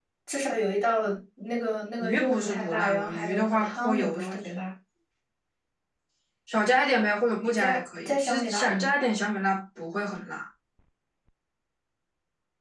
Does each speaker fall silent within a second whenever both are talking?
No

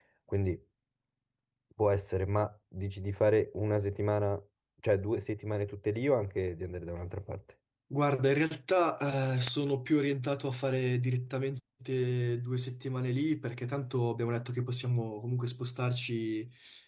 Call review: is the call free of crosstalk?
Yes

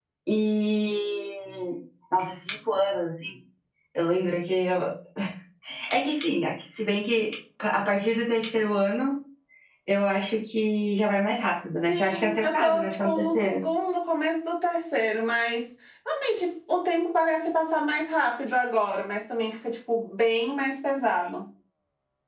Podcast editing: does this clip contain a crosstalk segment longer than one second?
Yes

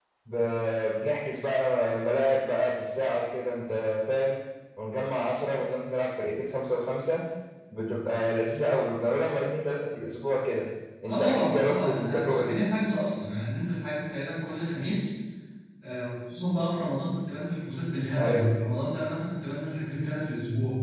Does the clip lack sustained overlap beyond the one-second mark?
No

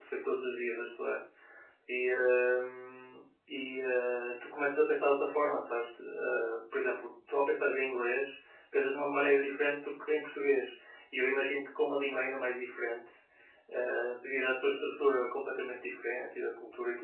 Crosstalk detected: No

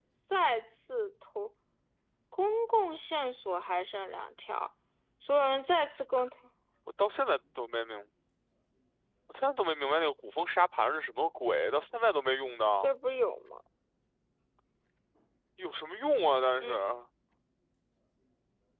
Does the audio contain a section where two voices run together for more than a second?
No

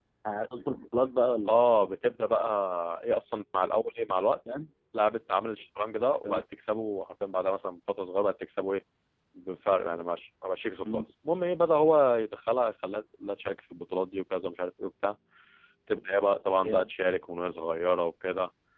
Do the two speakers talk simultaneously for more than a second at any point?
No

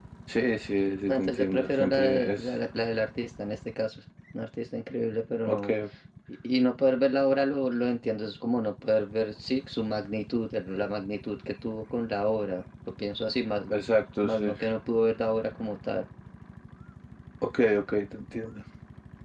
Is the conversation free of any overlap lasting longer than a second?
No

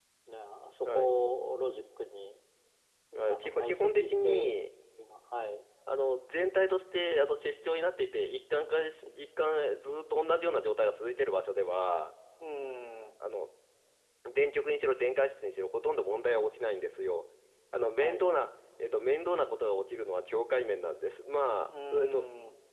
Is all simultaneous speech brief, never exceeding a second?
No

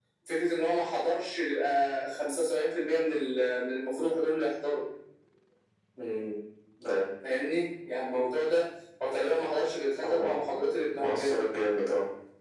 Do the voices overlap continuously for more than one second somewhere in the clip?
No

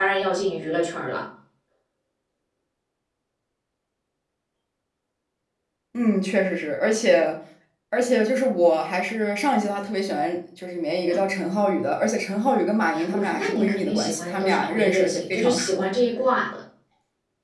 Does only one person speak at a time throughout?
No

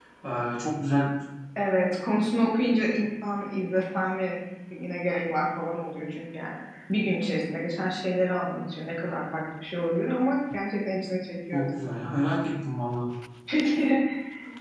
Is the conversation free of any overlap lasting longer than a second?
Yes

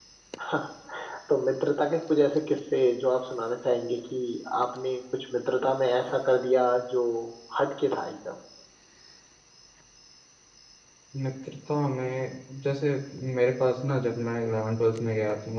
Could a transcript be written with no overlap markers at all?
Yes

